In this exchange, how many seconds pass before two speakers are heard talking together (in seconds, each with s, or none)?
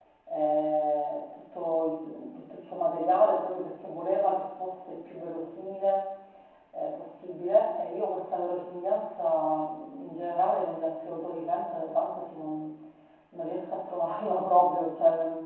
none